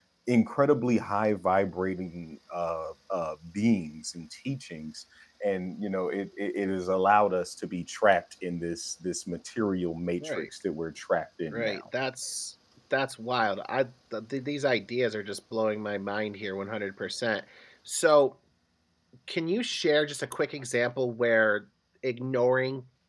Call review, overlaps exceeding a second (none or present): none